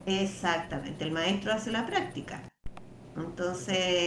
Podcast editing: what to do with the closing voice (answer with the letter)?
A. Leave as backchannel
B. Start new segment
A